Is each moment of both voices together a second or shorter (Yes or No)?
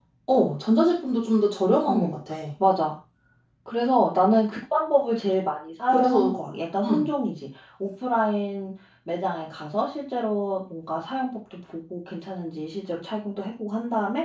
Yes